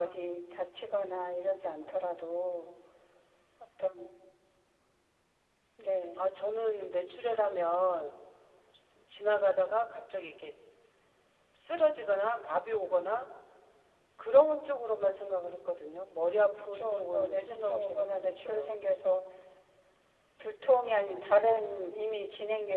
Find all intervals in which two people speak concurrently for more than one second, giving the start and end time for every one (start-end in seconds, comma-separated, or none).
16.7-18.8